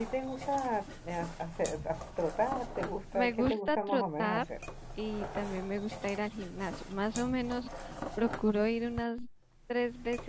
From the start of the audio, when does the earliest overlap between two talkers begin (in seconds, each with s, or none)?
3.1 s